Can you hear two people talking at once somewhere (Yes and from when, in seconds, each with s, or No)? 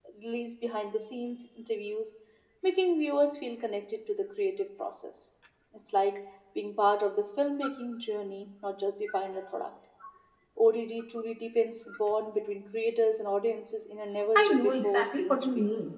Yes, from 14.3 s